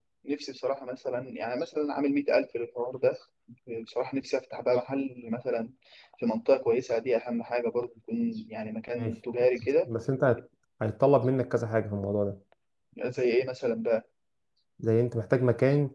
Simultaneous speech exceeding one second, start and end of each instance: none

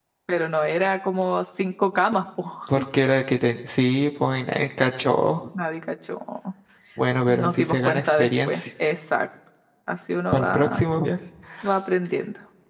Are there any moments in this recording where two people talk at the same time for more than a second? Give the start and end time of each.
7.3-8.6

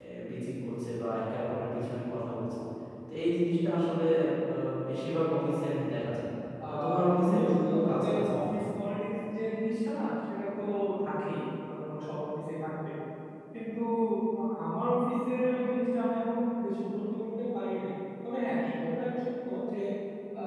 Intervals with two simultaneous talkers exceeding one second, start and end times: 6.7-8.5

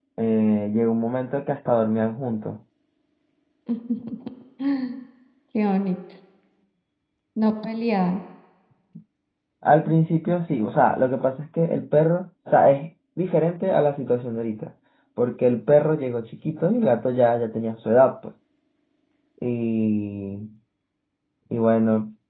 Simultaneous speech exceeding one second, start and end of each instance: none

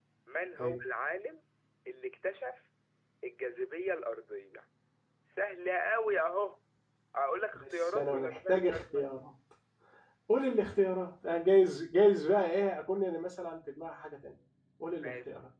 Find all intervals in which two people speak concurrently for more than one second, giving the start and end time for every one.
7.5-9.0

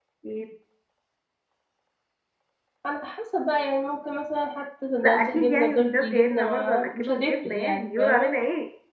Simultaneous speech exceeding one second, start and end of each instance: 5.0-8.3

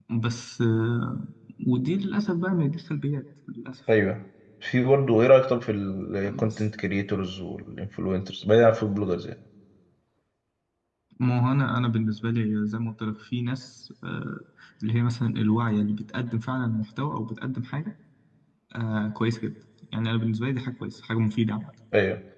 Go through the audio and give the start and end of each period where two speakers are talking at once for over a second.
none

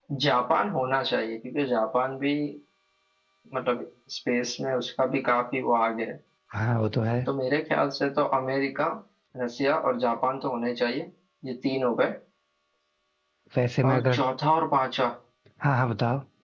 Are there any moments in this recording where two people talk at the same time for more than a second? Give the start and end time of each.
none

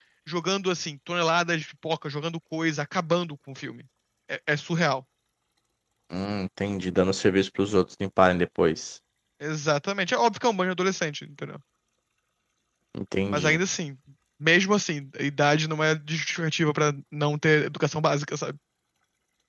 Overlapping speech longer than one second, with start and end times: none

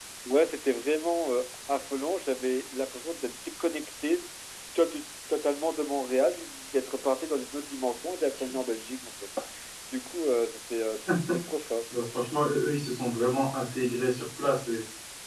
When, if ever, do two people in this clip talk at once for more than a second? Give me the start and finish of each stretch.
none

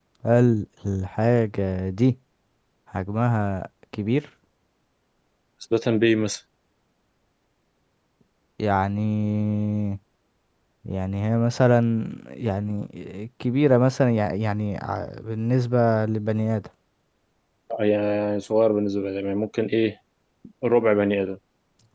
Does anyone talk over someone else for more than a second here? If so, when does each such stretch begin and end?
none

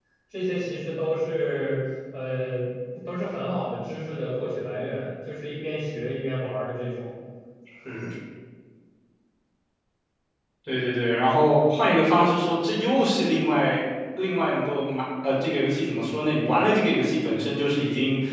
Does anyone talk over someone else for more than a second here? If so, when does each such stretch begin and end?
none

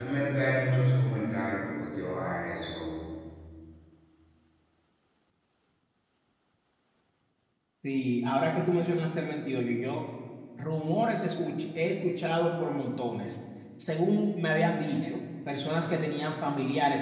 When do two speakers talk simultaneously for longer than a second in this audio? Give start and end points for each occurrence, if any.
none

